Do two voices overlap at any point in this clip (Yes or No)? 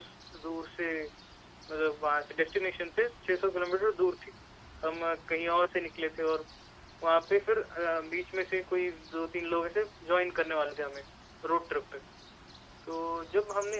No